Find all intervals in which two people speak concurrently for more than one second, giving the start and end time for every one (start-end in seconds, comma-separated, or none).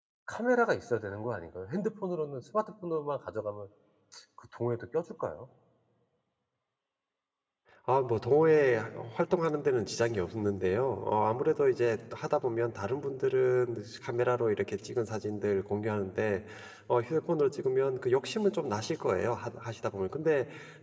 none